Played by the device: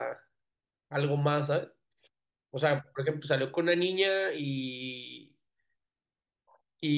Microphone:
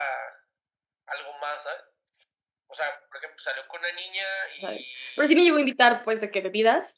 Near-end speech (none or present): present